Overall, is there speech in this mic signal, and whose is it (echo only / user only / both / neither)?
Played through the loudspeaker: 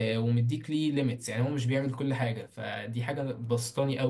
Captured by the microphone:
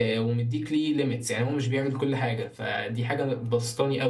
echo only